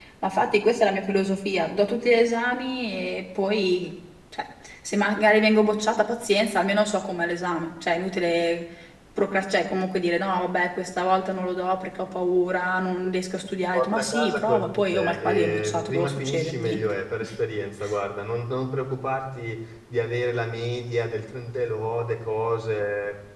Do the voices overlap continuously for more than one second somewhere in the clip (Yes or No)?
Yes